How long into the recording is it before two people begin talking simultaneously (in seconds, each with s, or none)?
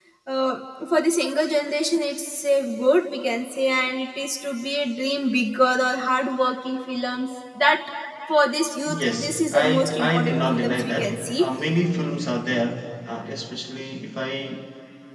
8.9 s